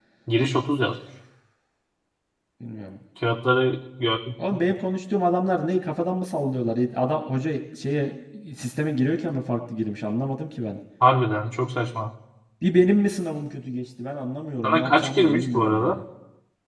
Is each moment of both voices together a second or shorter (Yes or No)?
No